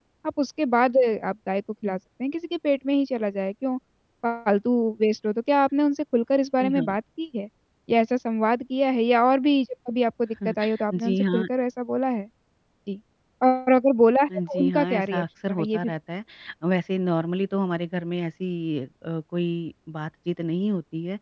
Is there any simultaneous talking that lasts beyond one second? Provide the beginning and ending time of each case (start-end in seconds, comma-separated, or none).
14.5-15.9